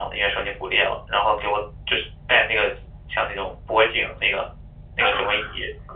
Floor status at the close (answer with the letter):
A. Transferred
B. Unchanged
B